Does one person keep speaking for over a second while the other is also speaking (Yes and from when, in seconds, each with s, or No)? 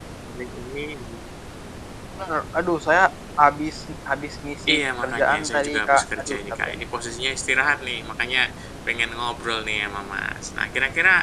Yes, from 4.7 s